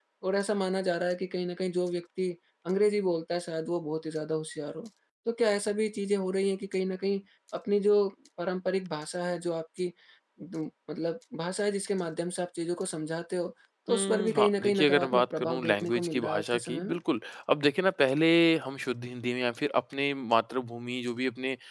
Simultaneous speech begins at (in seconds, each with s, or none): 13.9 s